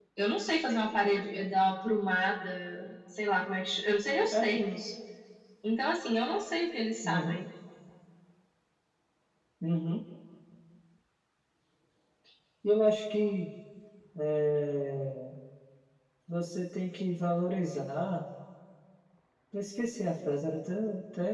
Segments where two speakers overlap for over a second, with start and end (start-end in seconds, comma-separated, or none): none